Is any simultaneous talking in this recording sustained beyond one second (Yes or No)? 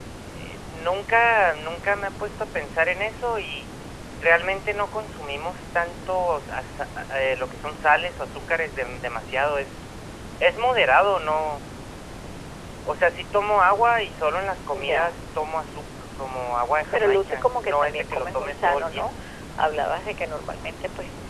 Yes